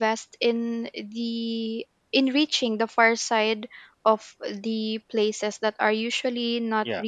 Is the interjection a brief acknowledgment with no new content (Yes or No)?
Yes